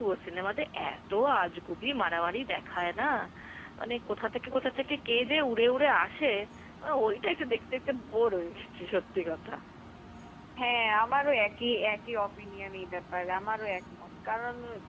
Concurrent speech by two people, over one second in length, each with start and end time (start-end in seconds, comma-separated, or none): none